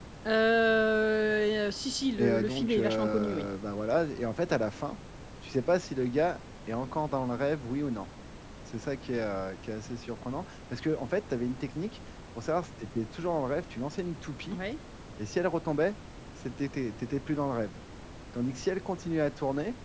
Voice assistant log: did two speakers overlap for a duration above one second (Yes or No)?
Yes